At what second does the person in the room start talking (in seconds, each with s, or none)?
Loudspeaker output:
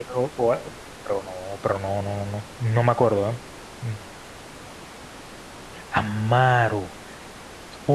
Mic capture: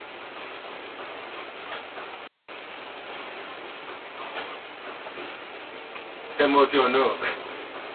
6.3 s